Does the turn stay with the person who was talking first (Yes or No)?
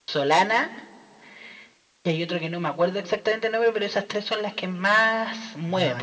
No